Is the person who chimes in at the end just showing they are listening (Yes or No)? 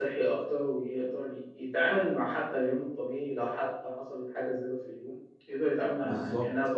No